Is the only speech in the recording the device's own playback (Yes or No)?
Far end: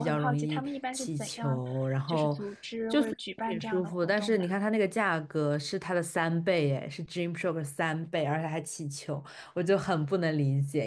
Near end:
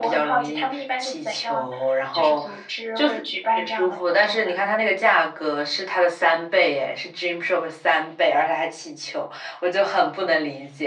Yes